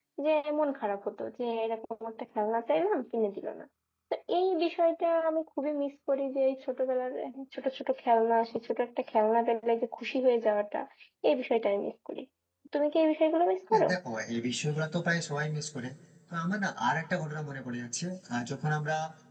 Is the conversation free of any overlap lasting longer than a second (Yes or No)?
Yes